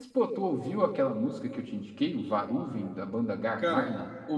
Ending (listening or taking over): taking over